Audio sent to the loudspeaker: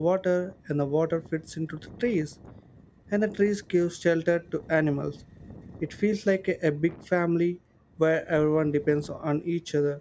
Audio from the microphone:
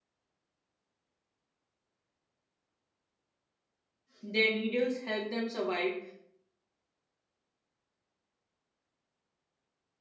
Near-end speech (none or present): present